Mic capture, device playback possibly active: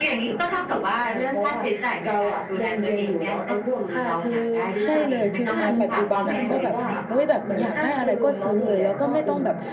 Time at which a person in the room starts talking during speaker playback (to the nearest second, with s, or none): 5 s